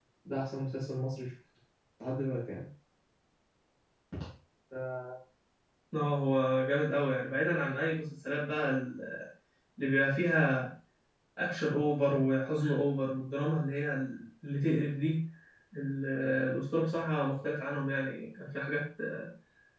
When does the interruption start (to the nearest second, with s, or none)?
none